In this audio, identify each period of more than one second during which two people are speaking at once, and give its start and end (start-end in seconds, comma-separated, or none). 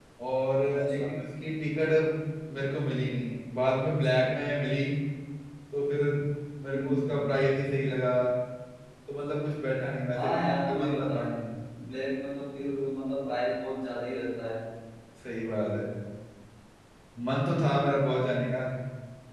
10.2-11.4